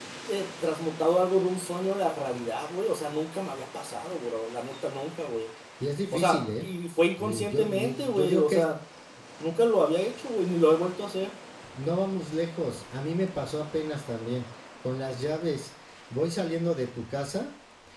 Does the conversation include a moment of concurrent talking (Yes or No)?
Yes